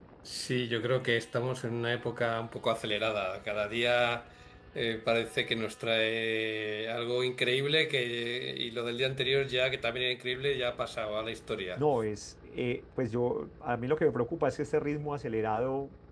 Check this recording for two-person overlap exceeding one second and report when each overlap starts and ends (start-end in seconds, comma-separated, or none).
none